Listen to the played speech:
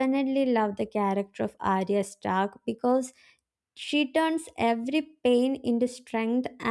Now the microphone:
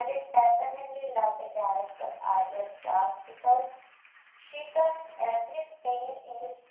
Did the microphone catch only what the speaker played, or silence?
Yes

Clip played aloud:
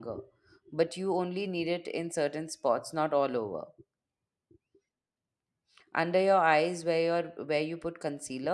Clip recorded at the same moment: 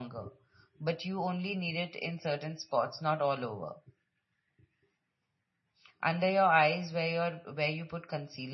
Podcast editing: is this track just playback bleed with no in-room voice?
Yes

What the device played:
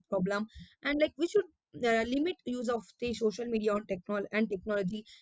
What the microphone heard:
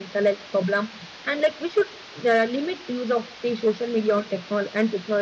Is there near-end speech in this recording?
No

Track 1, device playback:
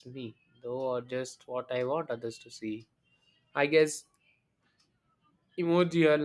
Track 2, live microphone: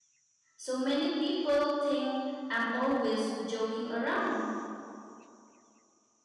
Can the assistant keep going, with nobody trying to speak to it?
No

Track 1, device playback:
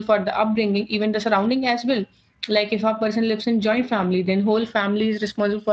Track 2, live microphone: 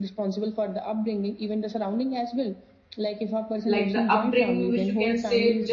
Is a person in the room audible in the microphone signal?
Yes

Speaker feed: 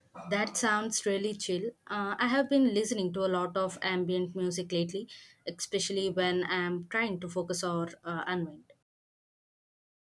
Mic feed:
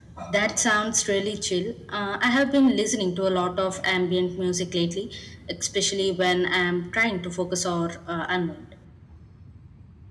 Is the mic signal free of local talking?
Yes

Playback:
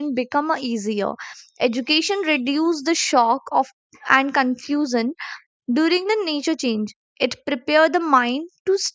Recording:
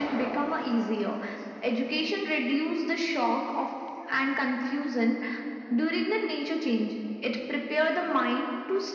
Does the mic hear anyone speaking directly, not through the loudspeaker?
No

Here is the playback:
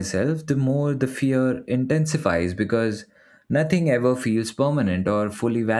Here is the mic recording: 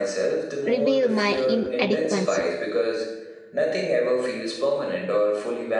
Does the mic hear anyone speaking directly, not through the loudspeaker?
Yes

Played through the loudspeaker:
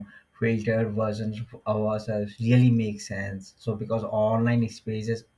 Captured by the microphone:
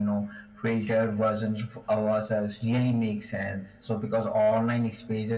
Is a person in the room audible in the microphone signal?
No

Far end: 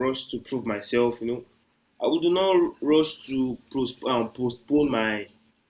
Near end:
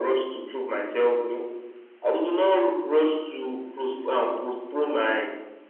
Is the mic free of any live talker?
Yes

